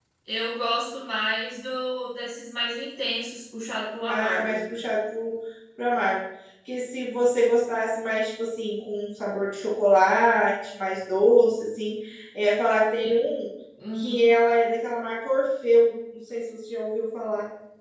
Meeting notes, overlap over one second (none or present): none